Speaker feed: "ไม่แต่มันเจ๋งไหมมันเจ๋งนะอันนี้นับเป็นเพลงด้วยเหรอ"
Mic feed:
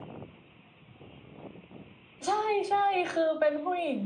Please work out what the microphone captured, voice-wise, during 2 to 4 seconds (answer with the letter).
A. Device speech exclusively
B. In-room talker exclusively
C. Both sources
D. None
B